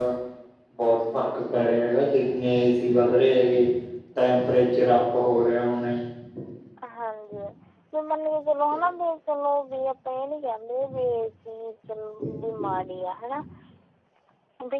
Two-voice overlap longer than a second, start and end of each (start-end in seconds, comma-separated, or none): none